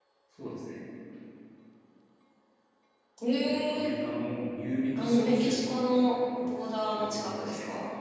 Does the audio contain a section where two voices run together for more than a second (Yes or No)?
Yes